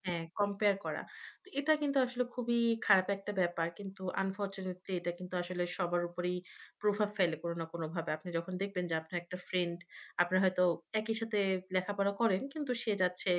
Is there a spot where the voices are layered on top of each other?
No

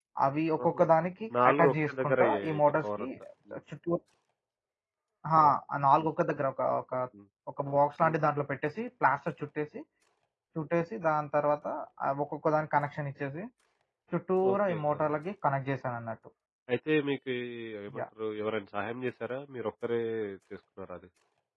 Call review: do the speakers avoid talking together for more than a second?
No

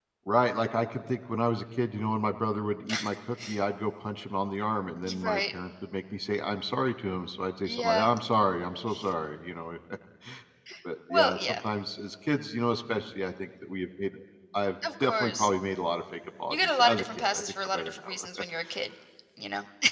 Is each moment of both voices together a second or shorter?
No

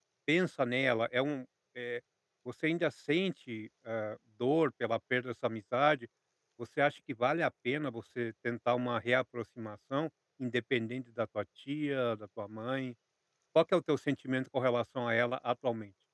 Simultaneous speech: No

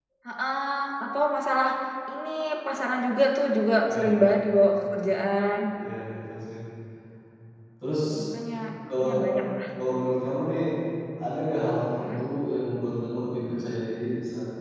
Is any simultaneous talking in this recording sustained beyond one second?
No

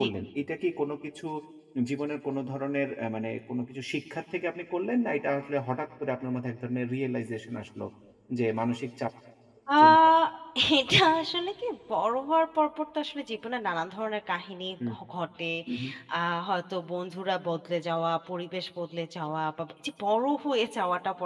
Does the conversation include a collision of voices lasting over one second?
No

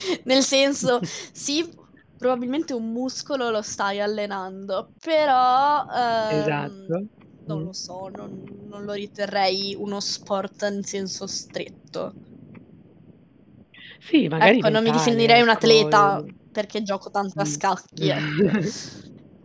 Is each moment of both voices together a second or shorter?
No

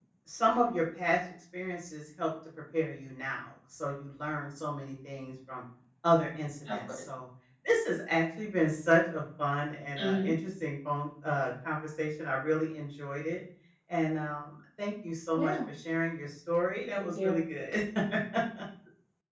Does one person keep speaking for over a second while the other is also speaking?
No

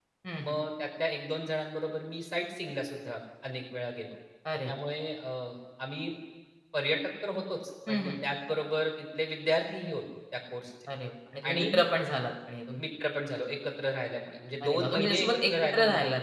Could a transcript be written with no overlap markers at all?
No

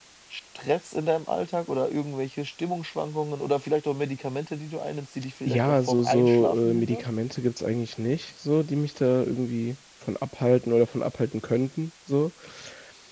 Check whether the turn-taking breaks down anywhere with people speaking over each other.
Yes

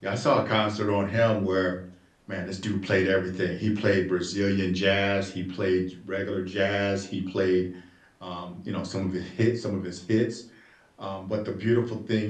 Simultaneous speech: No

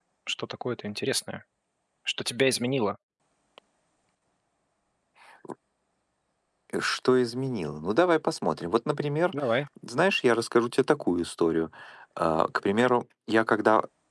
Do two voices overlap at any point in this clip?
No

